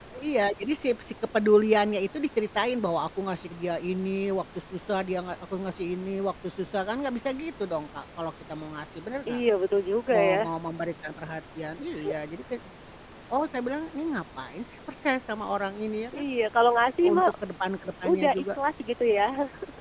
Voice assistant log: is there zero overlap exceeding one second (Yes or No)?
Yes